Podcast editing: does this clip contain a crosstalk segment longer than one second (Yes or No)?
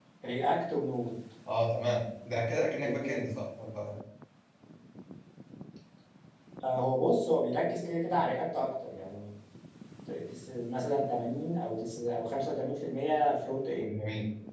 No